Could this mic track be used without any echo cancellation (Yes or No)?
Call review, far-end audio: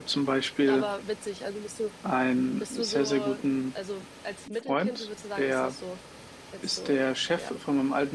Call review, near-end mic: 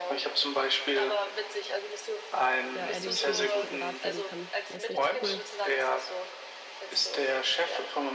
No